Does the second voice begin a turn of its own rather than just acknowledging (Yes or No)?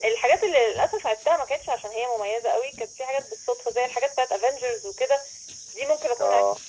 No